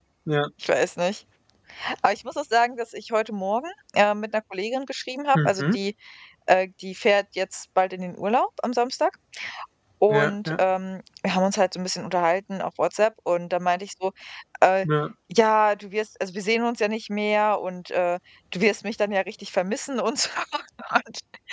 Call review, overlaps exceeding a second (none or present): none